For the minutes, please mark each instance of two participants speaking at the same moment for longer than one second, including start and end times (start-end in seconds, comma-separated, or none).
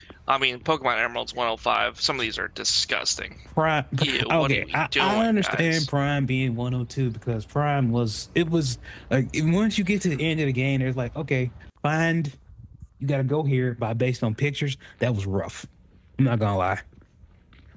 4.0-5.9